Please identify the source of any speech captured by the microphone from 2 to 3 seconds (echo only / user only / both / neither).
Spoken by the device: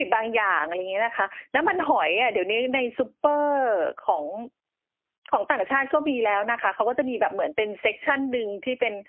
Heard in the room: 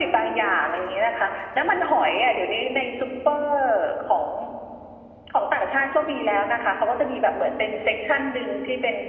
echo only